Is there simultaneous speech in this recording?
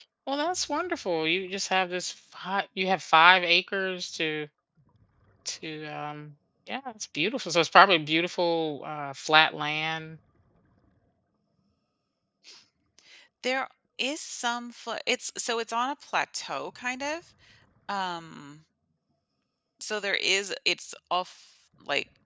No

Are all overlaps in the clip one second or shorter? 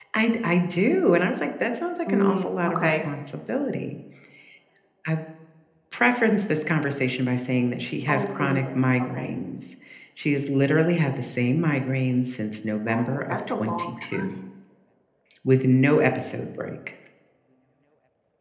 No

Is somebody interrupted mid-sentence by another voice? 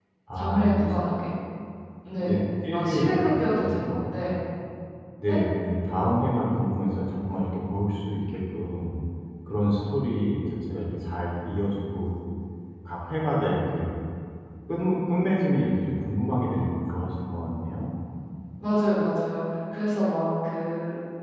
Yes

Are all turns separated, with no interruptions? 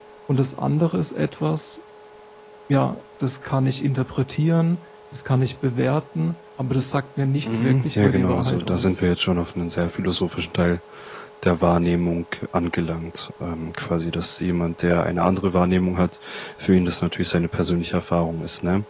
No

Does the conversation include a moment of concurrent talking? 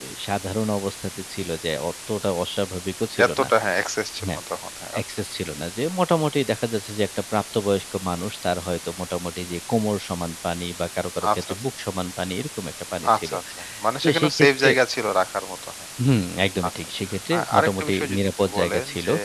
Yes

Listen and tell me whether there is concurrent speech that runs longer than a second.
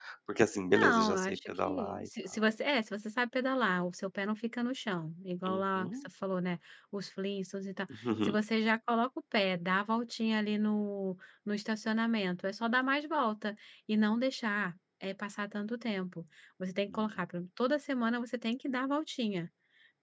Yes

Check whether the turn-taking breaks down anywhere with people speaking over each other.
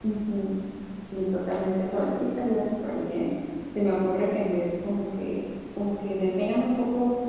No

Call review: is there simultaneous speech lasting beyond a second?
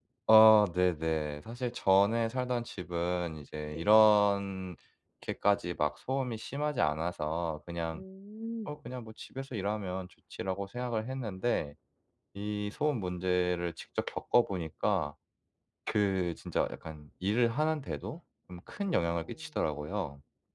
No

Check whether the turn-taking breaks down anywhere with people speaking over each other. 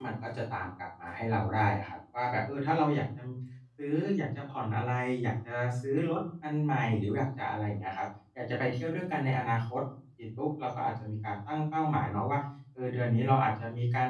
No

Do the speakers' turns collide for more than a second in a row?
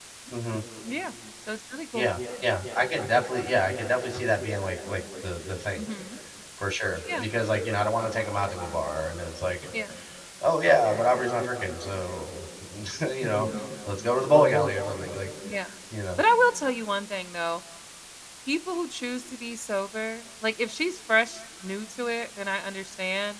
No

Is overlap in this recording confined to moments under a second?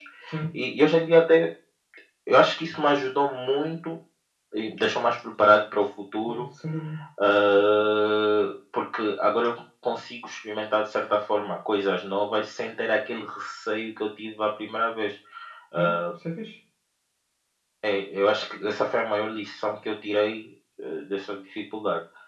Yes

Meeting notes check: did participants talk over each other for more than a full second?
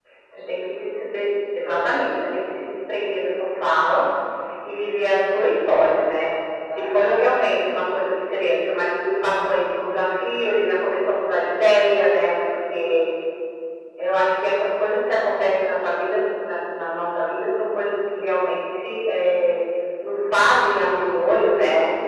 No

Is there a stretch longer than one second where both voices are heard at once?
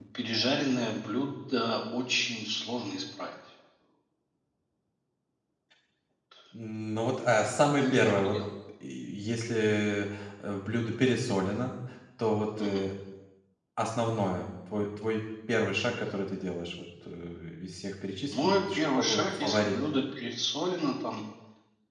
Yes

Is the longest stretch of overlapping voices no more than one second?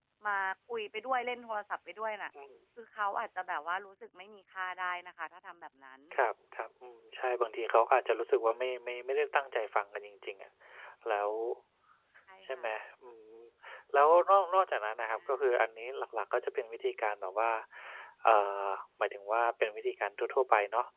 Yes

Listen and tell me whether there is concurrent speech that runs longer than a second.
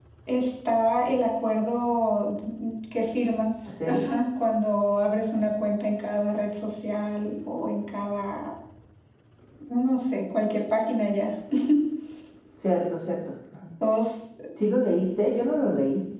No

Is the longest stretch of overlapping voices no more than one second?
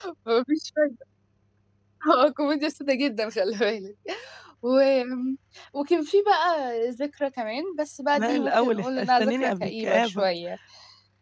No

